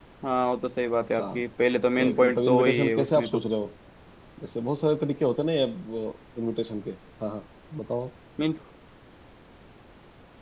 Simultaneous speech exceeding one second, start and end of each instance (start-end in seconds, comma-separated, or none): 2.0-3.4